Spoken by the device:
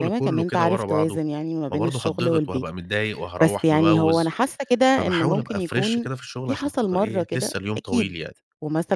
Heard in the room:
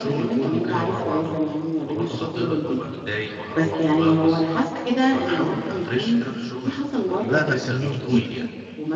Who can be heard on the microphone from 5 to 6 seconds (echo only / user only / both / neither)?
echo only